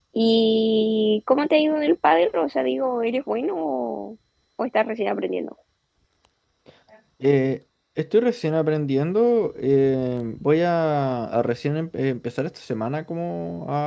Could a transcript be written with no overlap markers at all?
Yes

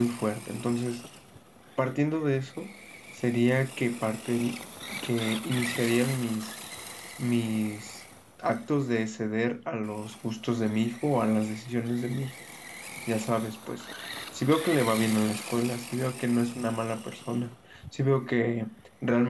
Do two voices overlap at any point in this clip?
No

